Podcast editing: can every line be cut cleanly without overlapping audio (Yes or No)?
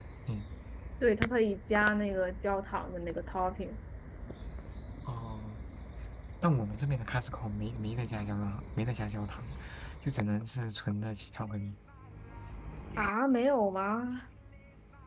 Yes